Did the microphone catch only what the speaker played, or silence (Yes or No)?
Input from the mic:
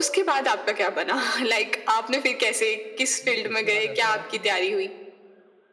No